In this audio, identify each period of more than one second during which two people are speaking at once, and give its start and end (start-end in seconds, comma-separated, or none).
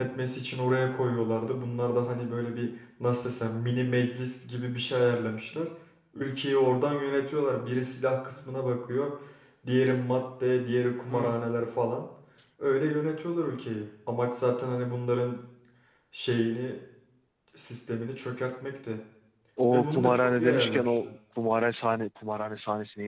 19.7-21.1